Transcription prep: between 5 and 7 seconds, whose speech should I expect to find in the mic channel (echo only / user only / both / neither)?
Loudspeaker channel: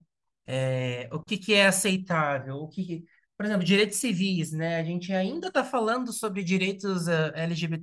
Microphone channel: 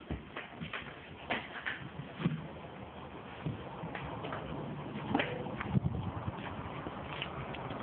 neither